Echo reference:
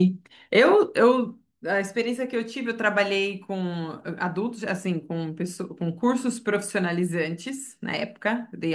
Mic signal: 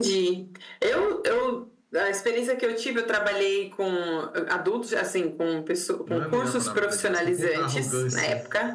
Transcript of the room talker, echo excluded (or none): não é a melhor palavra para dizer, mas com pouca arrogância